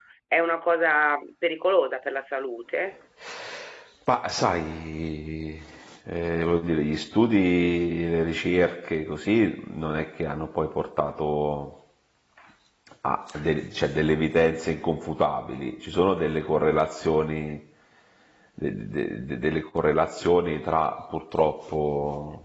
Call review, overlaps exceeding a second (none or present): none